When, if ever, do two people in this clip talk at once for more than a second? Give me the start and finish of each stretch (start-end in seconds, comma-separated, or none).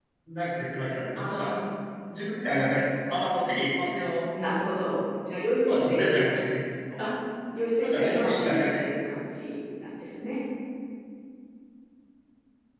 7.7-8.9